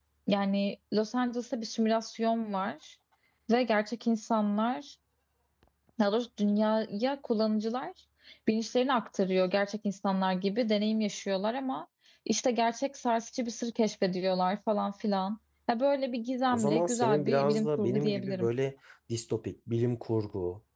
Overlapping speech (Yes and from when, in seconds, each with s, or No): Yes, from 16.4 s